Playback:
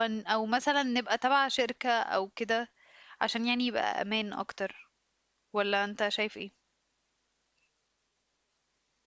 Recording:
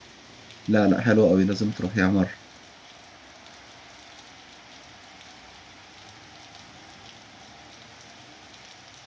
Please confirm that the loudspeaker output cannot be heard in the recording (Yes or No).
Yes